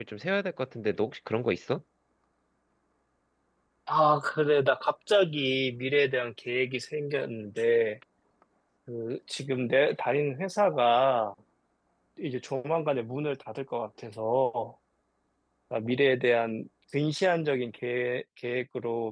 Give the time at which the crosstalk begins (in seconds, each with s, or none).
none